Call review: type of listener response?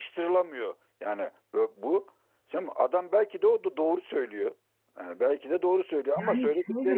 listening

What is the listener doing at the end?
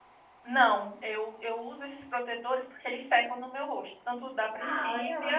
listening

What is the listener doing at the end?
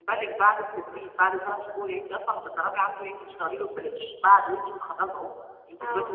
listening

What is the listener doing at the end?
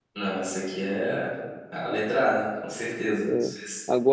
taking over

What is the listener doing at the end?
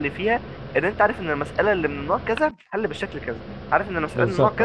listening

